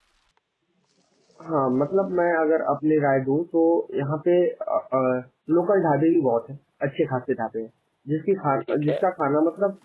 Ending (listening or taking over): listening